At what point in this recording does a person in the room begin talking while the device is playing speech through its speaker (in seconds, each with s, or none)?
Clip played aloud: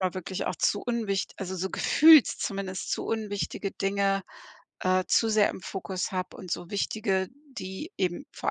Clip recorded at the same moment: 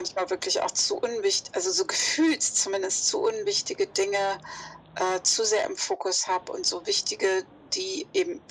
none